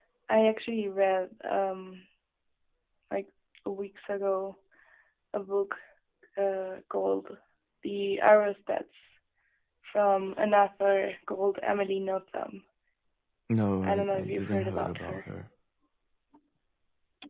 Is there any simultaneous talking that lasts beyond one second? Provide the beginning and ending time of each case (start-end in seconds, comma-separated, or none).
13.8-15.2